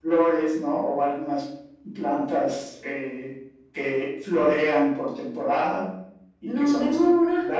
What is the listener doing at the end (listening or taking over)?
taking over